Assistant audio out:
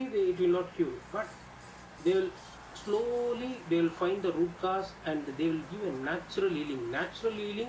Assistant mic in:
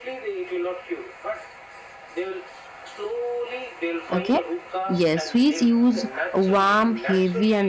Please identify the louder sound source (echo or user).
user